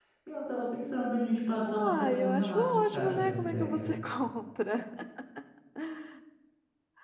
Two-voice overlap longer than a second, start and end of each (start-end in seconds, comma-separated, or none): 1.7-4.0